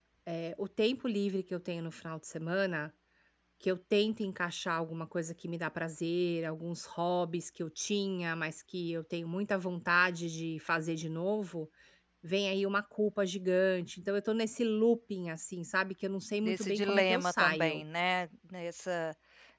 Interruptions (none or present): present